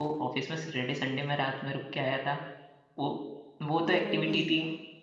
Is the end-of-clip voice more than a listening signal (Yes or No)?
No